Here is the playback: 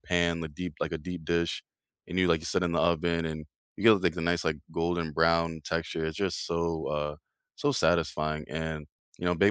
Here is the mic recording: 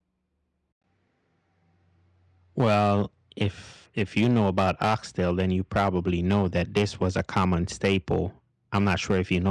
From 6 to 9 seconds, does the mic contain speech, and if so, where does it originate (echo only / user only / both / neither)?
user only